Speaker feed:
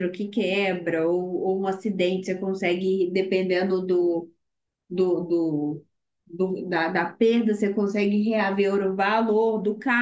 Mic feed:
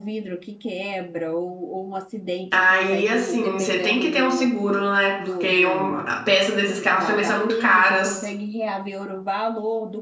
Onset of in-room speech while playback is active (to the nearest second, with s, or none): 3 s